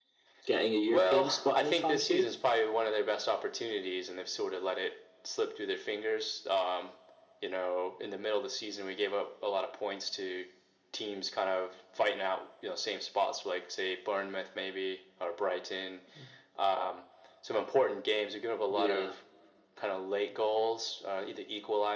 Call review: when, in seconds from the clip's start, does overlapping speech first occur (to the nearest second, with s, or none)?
1 s